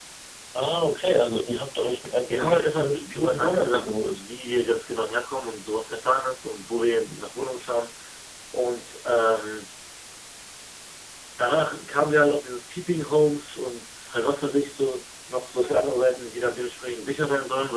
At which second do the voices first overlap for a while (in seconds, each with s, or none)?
2.2 s